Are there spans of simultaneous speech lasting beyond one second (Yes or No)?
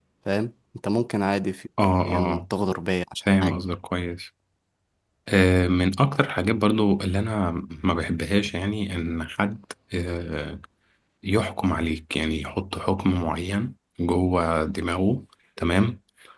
No